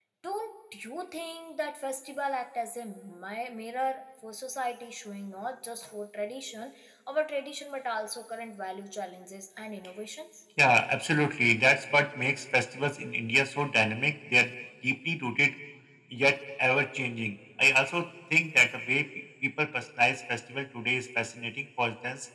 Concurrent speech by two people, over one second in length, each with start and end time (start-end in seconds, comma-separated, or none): none